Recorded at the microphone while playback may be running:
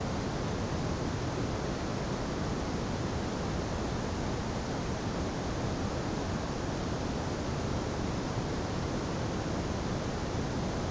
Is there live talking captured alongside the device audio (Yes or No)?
No